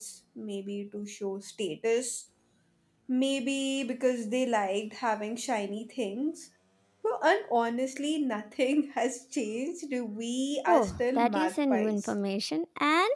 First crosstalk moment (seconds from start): 10.7 s

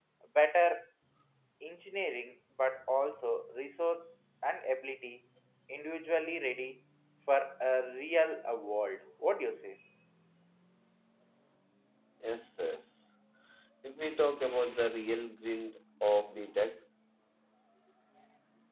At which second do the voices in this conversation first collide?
none

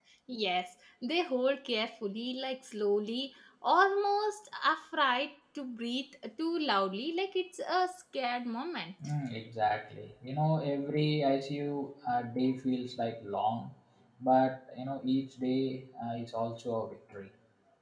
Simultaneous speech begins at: none

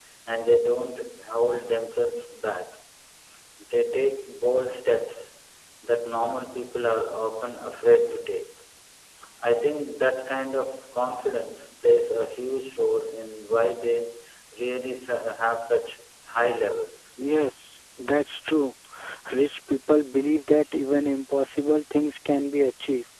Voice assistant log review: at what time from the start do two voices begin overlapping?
none

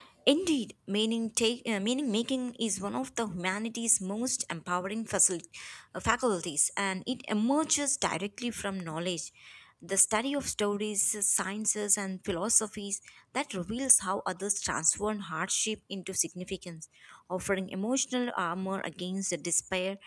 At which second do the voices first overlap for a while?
none

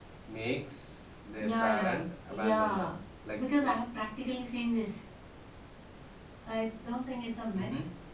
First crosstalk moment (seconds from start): 1.4 s

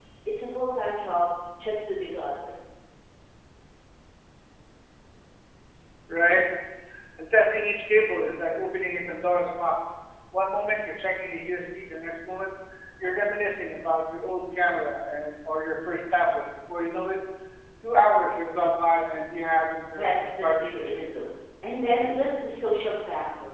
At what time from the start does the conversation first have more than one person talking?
19.9 s

